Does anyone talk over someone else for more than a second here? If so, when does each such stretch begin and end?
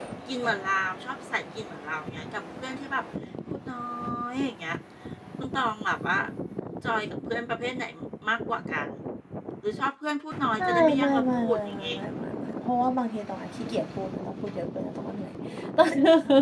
10.6-12.0

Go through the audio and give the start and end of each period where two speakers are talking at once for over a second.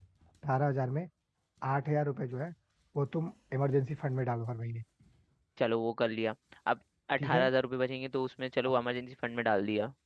none

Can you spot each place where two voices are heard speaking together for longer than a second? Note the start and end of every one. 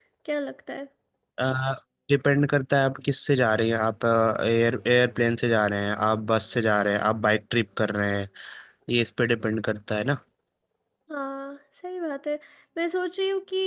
none

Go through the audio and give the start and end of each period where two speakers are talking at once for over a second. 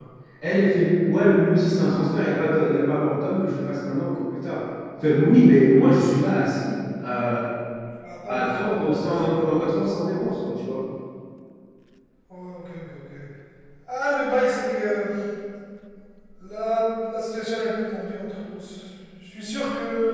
8.3-9.7

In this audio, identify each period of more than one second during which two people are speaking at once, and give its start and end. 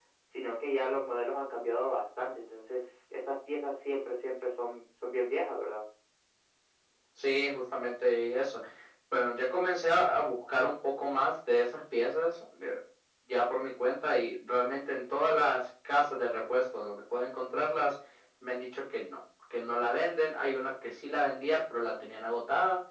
none

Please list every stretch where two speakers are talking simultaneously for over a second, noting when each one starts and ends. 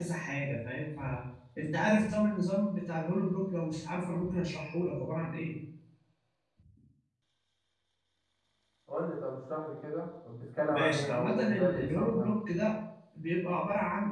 10.7-12.3

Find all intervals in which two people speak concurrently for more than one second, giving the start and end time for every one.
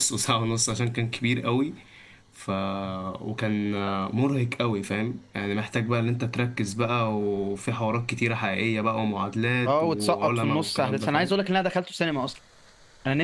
9.7-11.3

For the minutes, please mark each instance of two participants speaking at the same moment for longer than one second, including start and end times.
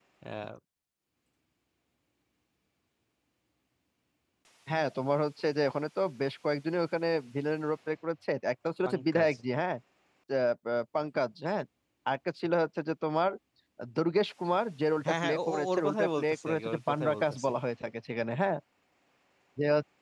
15.1-17.5

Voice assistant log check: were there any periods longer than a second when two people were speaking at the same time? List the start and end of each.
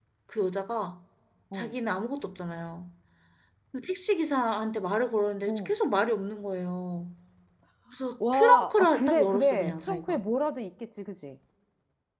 8.3-10.2

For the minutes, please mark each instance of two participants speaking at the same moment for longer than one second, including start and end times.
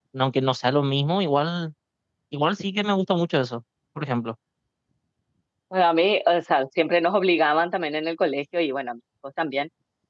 none

